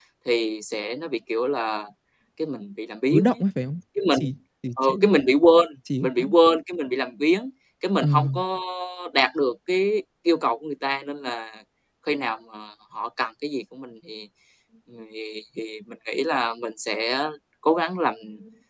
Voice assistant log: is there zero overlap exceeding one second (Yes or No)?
Yes